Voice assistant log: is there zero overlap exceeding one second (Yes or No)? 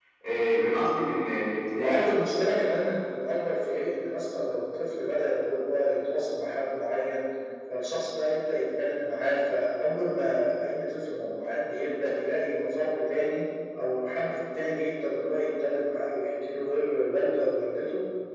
Yes